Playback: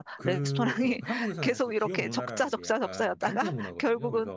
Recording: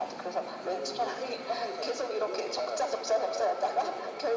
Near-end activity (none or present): none